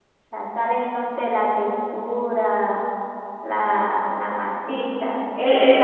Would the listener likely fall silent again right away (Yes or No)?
No